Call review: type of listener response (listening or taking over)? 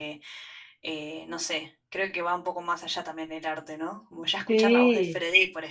listening